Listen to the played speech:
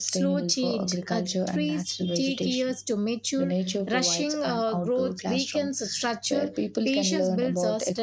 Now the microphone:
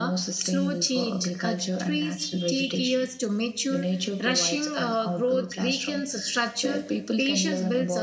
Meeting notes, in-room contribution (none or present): none